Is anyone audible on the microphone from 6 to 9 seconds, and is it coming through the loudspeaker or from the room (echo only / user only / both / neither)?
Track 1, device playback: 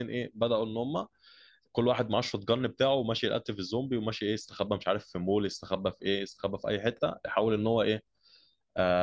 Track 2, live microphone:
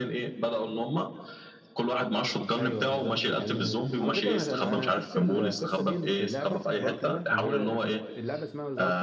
both